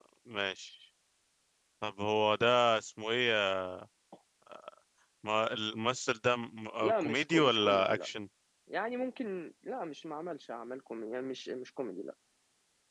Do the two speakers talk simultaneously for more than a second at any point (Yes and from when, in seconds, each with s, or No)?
Yes, from 6.8 s